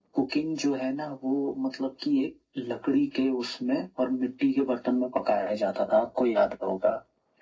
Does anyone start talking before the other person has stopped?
No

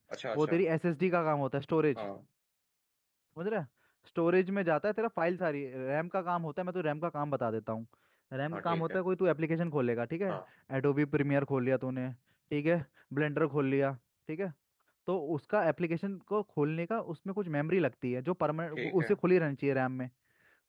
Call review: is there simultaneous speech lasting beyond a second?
No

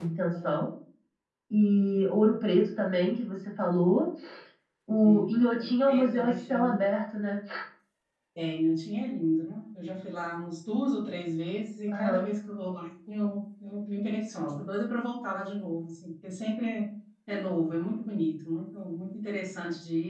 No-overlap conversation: No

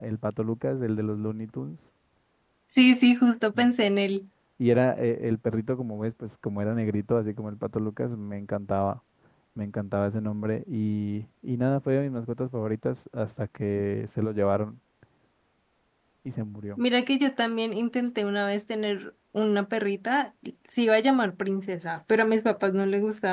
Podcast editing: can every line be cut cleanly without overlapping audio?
Yes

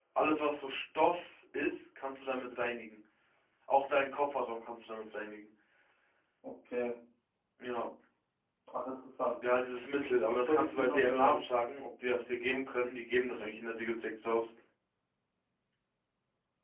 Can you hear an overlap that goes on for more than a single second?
Yes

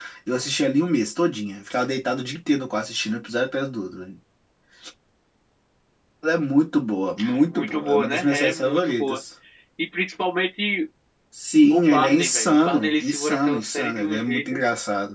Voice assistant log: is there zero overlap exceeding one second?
No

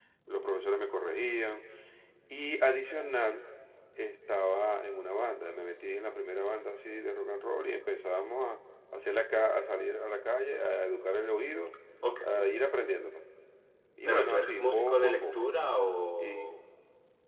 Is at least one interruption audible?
Yes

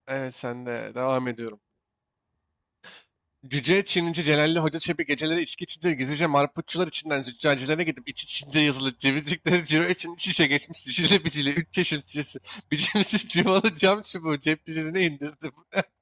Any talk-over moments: No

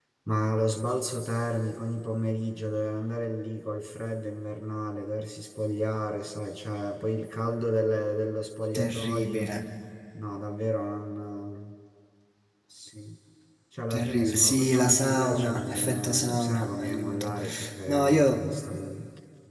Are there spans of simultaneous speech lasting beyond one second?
Yes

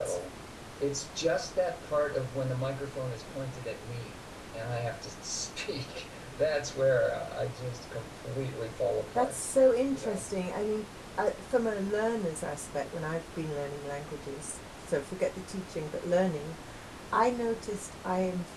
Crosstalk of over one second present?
No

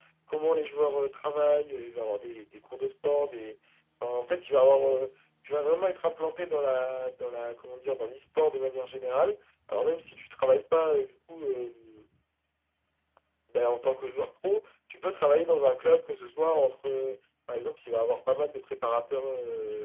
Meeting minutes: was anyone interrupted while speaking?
No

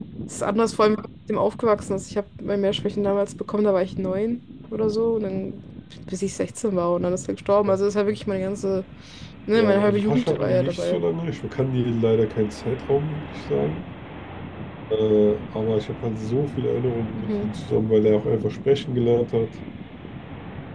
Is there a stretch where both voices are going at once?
Yes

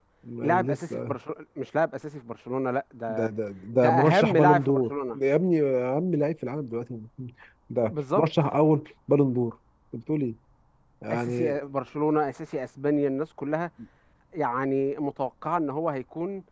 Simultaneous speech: Yes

